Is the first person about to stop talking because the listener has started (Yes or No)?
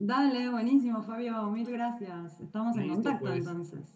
Yes